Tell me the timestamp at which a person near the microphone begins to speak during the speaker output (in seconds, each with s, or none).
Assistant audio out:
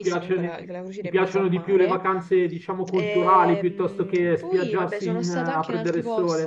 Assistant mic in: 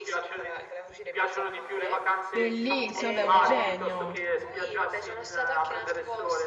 2.3 s